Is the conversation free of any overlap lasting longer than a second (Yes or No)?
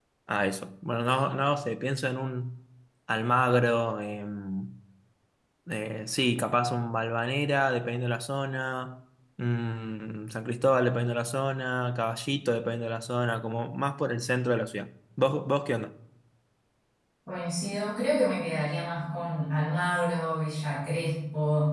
Yes